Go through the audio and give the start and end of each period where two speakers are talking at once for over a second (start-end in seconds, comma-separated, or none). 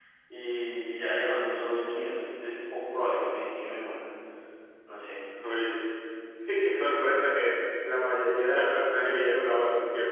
none